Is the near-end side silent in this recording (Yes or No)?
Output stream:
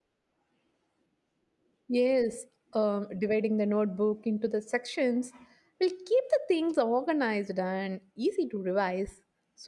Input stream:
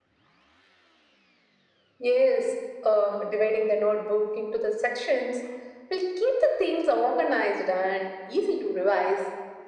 Yes